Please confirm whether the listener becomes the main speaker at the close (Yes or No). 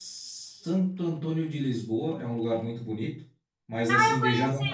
Yes